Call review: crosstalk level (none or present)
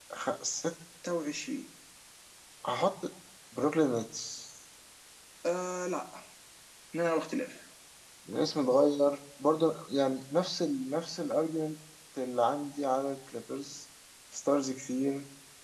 none